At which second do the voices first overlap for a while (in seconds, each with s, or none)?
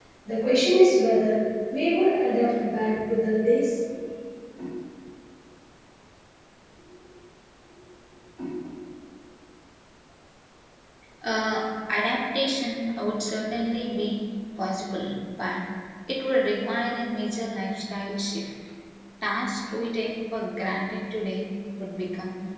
none